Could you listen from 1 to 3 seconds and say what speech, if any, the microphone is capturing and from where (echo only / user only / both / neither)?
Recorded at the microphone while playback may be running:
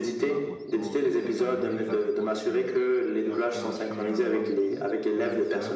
both